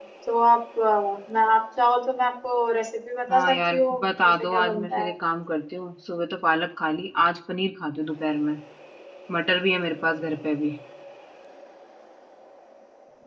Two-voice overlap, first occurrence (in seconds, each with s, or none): 3.3 s